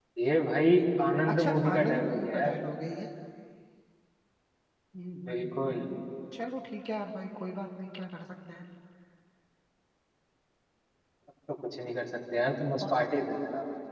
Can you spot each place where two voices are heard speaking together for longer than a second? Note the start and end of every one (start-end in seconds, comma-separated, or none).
1.3-2.5